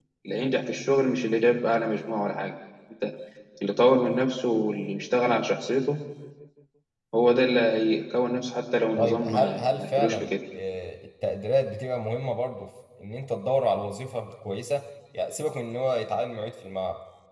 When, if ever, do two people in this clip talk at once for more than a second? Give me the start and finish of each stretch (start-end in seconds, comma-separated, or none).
9.0-10.3